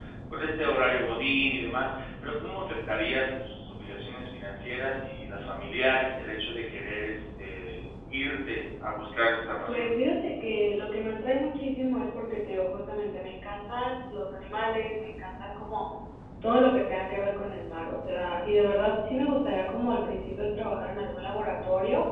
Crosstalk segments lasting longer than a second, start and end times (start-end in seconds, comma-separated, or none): none